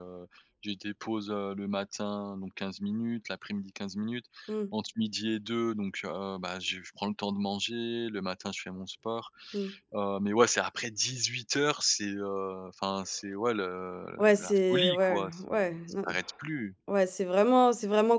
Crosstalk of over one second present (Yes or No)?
Yes